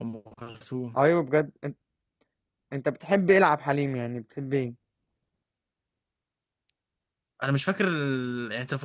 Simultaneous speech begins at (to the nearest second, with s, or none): none